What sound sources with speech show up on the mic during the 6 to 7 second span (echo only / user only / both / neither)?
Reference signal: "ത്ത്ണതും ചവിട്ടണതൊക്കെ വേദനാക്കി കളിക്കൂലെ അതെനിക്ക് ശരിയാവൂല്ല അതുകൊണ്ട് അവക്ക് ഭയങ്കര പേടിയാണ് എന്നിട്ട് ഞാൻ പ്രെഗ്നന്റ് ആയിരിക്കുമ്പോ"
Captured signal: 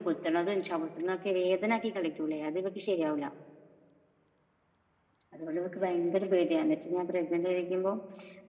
echo only